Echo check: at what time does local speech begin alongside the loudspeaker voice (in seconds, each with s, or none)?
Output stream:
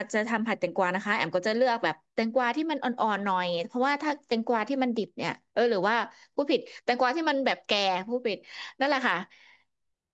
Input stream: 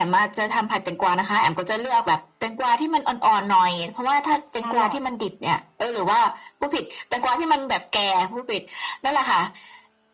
4.5 s